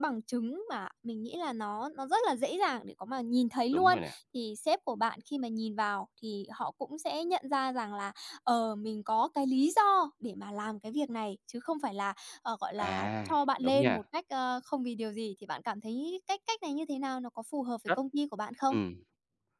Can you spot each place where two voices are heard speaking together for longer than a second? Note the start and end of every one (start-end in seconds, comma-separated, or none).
12.8-14.0